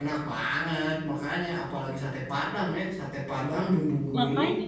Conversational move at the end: listening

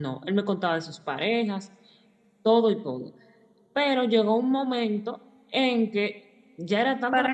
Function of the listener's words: taking over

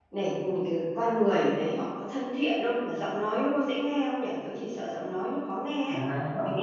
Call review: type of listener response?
taking over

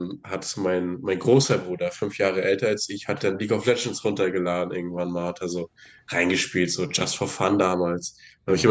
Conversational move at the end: listening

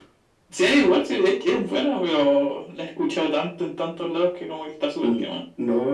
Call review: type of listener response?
taking over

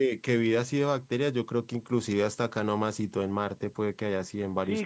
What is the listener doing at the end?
taking over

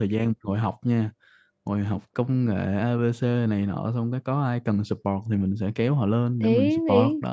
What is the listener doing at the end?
taking over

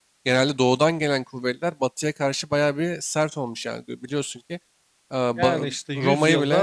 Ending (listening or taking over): taking over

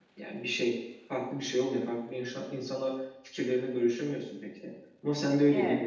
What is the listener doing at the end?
listening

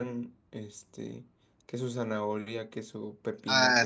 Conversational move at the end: taking over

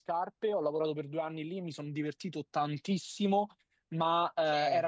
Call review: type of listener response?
listening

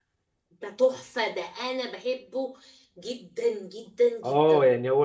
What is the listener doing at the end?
taking over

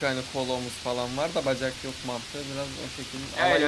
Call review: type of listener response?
taking over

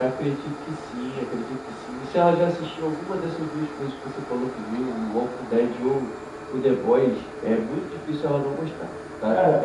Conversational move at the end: taking over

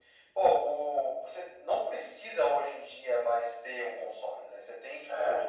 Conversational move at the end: listening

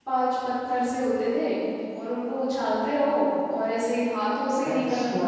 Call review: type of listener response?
taking over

